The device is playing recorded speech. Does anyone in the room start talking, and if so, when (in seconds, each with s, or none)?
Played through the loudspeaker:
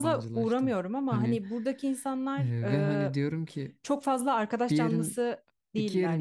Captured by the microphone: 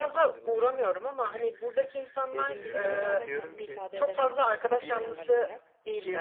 2.3 s